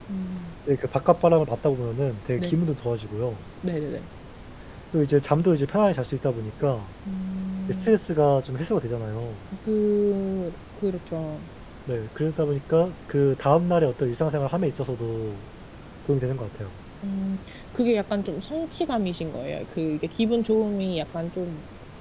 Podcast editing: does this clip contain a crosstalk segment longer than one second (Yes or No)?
No